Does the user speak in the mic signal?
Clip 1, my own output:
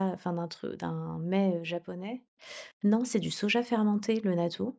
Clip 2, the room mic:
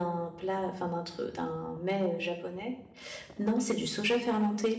No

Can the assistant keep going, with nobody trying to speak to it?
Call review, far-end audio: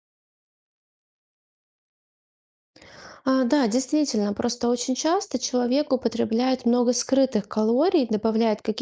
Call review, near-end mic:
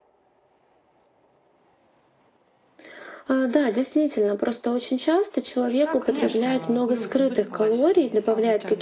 No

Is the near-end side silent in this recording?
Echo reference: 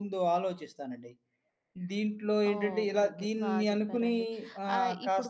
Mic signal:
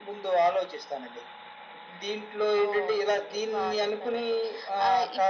Yes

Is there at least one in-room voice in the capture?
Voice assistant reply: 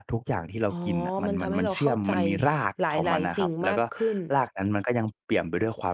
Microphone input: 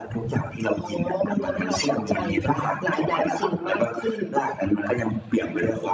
No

